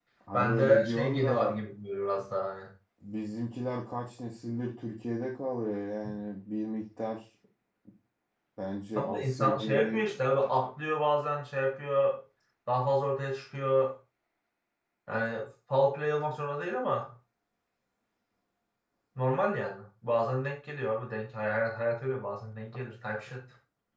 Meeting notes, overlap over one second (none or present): present